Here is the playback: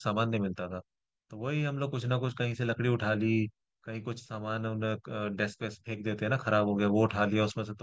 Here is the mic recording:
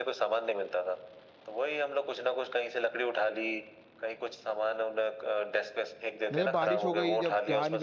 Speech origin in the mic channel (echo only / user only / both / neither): both